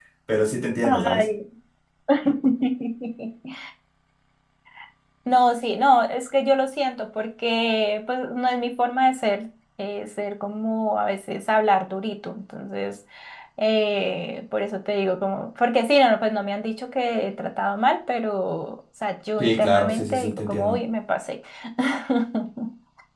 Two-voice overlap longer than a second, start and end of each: 19.4-20.8

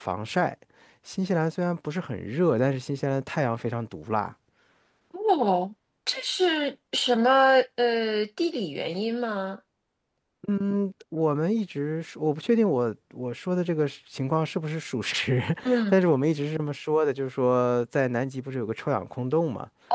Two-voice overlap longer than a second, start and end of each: none

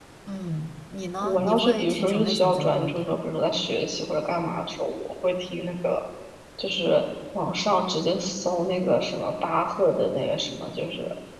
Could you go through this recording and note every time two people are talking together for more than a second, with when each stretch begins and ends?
1.2-3.1

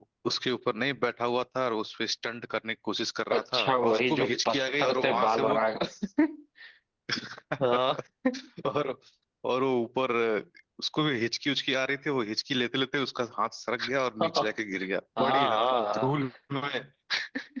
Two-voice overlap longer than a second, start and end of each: 3.4-5.6

